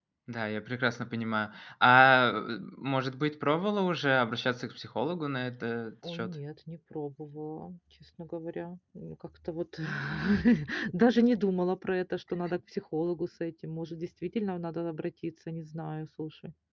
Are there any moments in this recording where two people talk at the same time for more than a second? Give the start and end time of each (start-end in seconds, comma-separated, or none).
none